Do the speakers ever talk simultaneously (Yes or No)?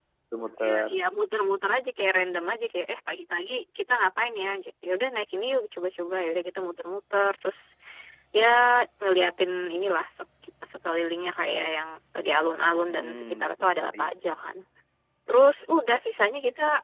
Yes